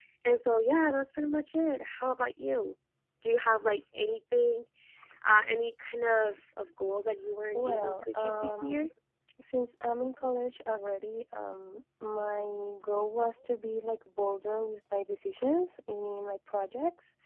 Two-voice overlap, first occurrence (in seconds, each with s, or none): 7.5 s